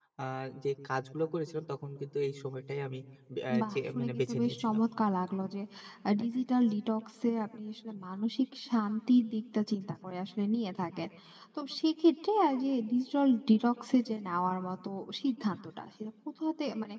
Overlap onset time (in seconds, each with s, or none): 3.6 s